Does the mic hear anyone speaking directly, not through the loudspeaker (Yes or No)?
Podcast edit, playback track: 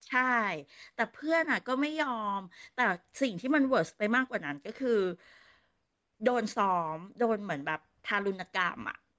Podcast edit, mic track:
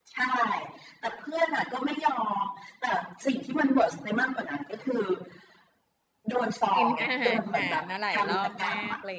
Yes